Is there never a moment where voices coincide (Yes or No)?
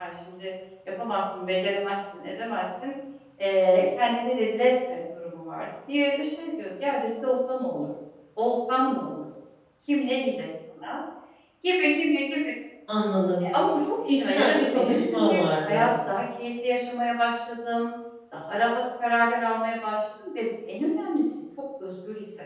No